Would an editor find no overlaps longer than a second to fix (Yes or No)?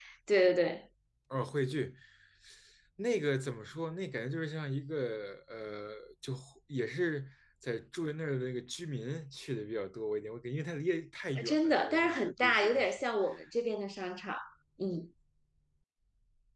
No